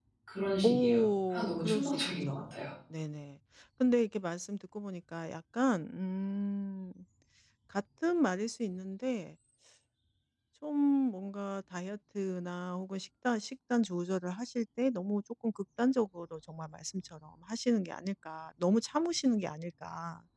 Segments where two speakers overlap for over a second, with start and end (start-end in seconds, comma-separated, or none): 0.6-2.4